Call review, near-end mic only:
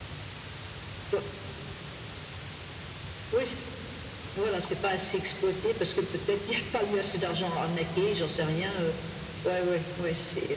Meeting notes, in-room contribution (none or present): none